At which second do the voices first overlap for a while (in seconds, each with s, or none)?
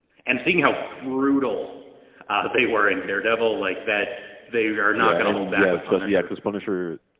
5.0 s